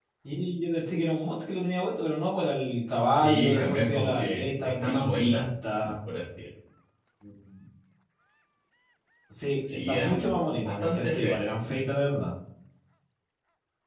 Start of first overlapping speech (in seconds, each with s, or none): 3.1 s